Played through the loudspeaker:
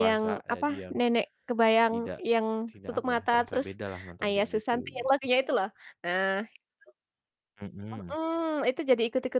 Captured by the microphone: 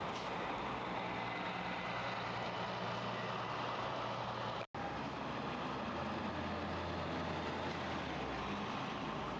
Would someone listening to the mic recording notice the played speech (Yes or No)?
No